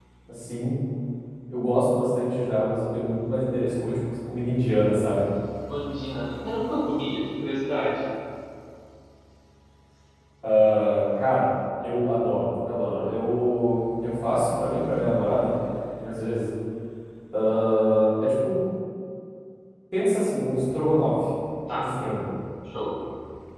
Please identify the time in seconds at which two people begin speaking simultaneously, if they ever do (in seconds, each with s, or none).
none